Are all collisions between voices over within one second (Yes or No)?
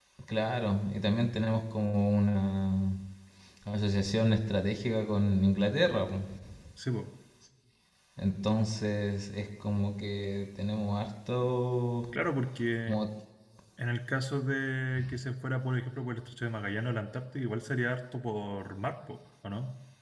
Yes